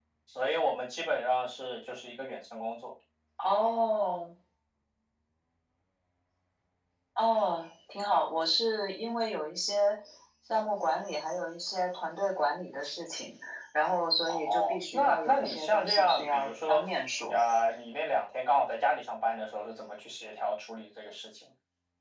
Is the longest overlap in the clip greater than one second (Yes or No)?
Yes